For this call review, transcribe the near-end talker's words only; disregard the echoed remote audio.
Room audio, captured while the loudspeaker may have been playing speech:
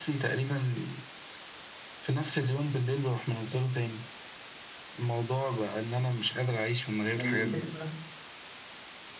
الفكرة بقى

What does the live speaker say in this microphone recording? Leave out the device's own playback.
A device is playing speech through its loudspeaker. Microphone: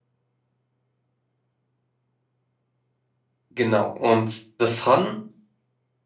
Genau. Und das Han

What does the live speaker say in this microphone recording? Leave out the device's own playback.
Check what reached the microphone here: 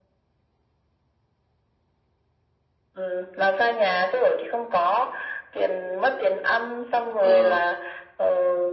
ờ,

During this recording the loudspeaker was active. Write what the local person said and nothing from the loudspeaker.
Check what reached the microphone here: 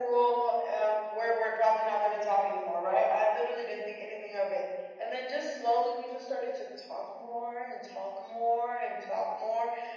none

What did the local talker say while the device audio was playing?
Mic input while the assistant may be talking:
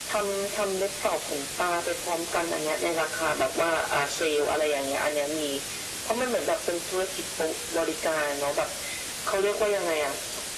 none

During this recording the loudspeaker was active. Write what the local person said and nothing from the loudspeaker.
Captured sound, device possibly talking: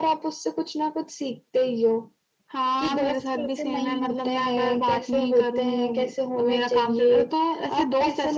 none

